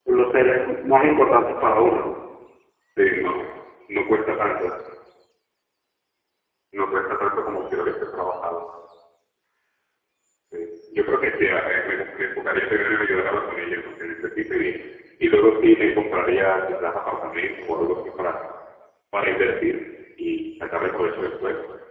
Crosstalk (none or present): none